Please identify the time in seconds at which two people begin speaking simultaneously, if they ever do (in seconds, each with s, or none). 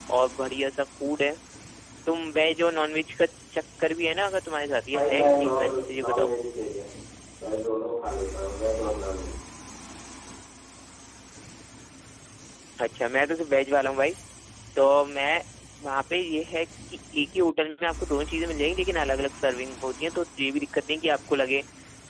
4.9 s